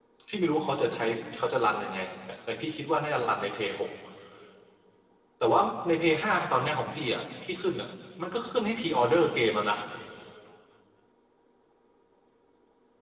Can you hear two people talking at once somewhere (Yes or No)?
No